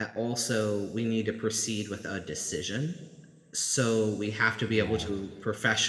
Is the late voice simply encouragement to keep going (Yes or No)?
Yes